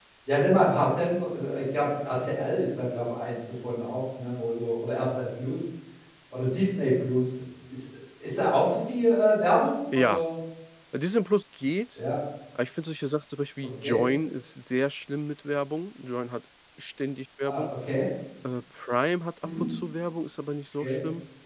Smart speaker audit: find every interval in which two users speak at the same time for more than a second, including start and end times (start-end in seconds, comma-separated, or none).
none